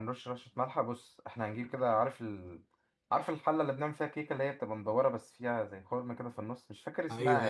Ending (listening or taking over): taking over